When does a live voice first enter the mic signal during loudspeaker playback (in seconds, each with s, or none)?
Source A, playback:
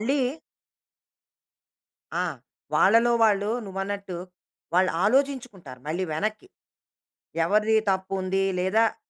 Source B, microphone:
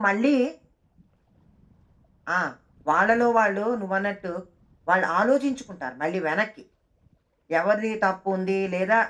none